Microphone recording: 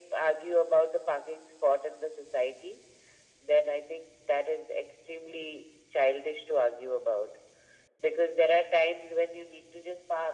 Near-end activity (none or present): none